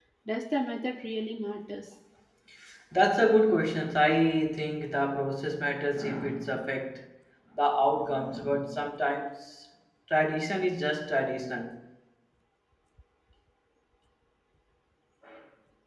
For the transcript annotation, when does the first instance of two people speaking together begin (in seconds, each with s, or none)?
none